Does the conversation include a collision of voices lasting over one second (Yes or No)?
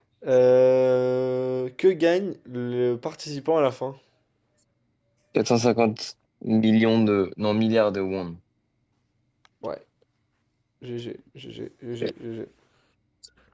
No